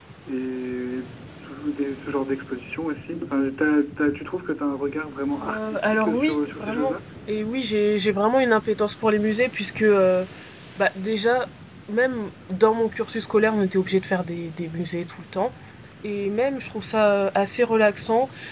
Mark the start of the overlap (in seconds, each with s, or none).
5.4 s